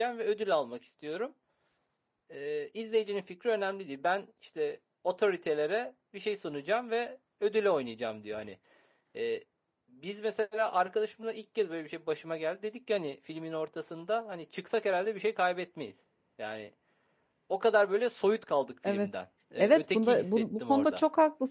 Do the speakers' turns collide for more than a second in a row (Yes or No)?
Yes